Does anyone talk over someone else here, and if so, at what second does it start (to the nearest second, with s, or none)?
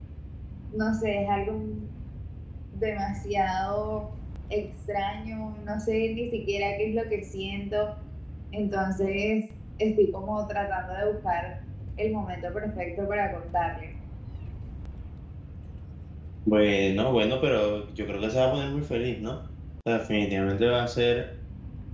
none